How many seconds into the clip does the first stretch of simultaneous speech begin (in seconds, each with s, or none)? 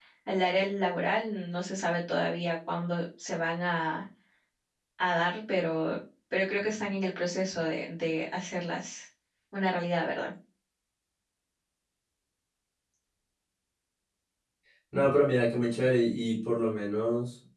none